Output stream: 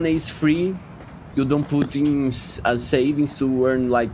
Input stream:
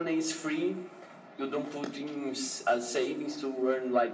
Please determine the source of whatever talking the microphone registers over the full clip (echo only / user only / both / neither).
echo only